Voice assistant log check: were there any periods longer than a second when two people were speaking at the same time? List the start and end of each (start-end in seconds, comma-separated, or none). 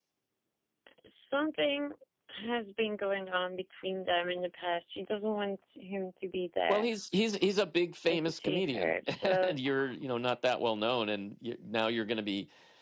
8.1-9.6